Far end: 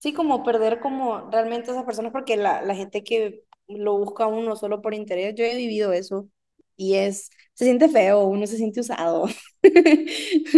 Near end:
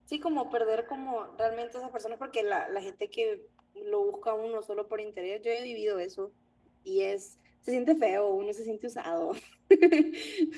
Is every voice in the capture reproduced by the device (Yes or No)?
Yes